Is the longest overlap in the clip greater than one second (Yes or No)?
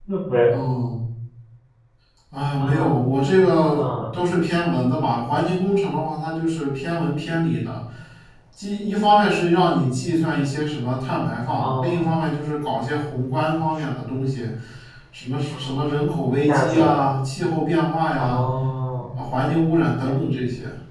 No